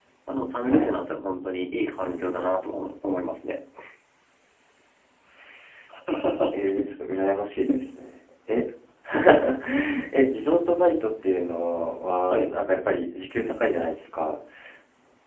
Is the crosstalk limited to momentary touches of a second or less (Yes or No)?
Yes